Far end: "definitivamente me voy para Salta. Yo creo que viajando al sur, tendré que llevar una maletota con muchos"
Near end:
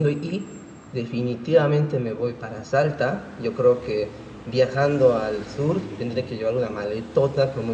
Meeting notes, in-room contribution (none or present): none